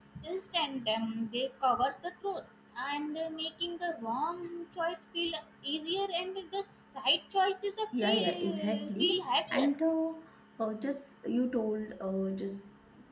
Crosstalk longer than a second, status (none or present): present